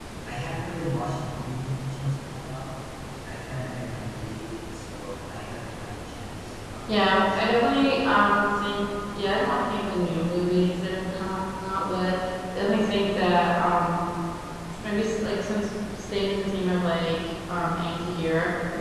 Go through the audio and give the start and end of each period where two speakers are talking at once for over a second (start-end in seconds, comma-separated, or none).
6.9-8.4